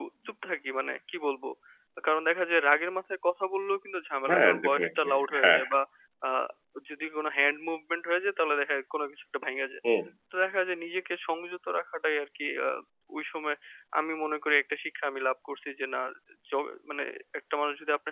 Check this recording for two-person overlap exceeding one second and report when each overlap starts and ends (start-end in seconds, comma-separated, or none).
4.3-5.7